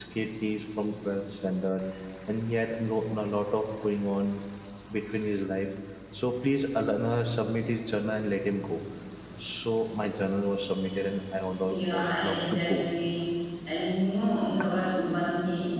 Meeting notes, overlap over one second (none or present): present